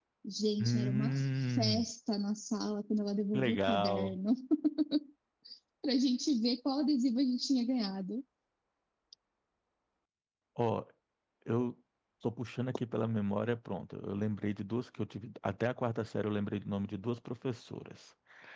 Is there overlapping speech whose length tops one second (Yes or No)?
Yes